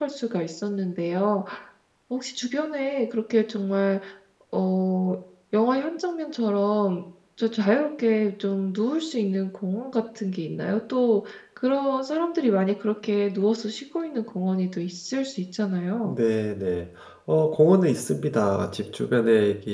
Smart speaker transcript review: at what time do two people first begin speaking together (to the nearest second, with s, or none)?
none